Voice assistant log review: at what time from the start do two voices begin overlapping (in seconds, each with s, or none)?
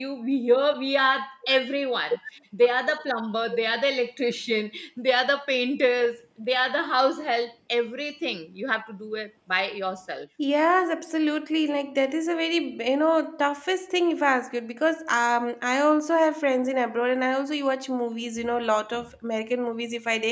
none